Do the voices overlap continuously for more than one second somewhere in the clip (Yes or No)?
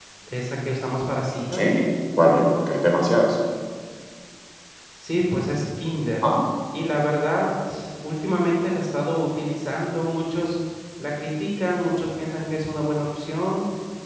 No